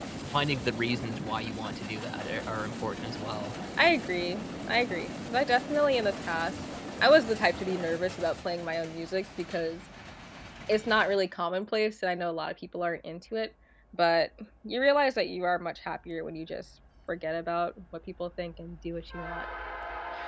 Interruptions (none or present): none